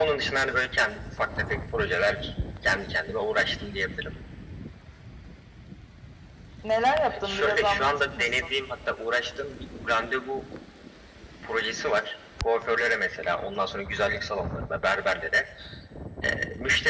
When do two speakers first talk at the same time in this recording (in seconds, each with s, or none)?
7.1 s